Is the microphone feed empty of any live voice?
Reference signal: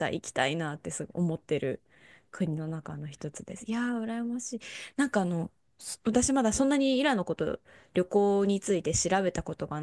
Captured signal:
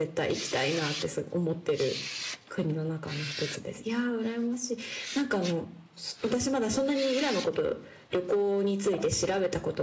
Yes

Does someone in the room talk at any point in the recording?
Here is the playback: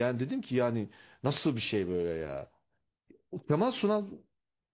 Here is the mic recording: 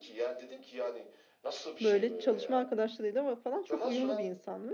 Yes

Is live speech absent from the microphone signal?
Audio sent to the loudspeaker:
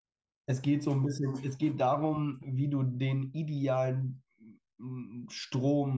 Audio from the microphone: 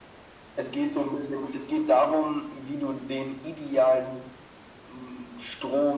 Yes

